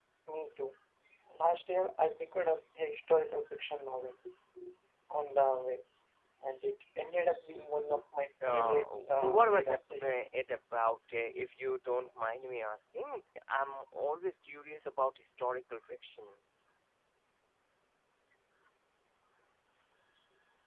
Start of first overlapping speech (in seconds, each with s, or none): 8.4 s